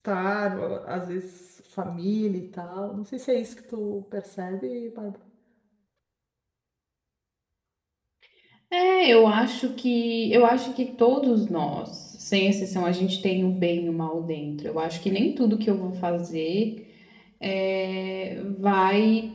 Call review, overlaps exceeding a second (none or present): none